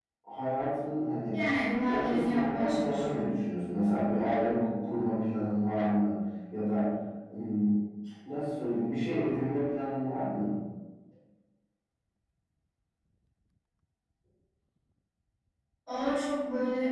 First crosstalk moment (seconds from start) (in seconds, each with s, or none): 1.9 s